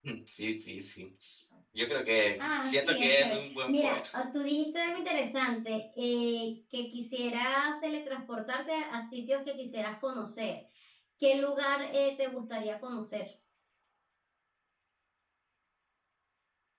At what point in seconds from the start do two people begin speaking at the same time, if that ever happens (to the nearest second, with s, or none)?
2 s